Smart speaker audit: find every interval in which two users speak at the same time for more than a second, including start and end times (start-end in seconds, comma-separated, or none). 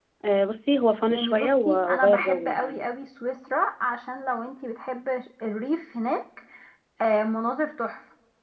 1.1-2.9